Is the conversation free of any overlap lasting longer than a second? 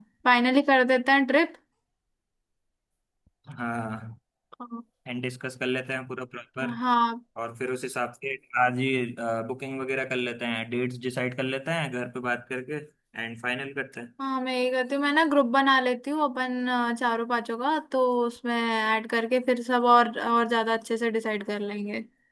Yes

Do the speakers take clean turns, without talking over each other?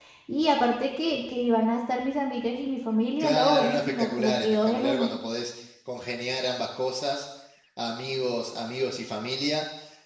No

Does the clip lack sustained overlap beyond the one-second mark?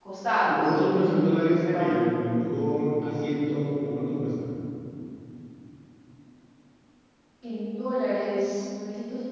Yes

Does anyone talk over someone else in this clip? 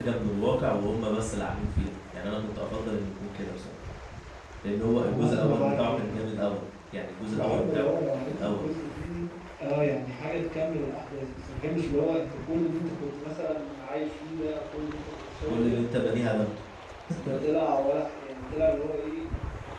Yes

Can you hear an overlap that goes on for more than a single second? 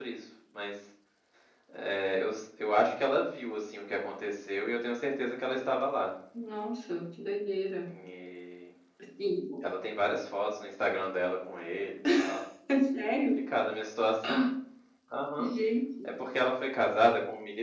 No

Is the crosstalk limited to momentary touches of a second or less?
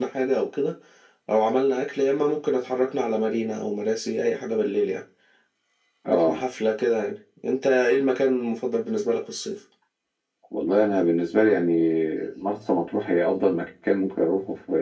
Yes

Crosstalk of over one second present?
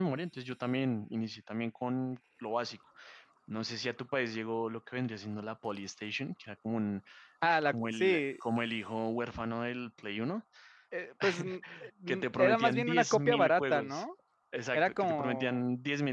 Yes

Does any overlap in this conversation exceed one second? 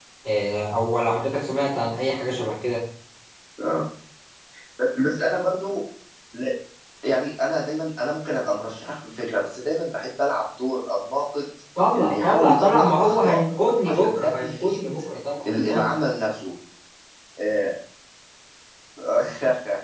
Yes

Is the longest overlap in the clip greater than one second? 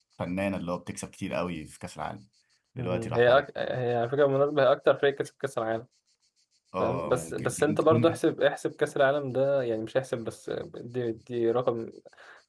Yes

